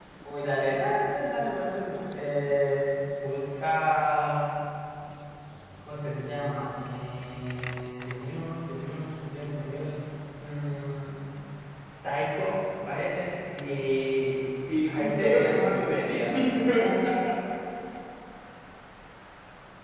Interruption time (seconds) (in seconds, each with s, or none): 14.7 s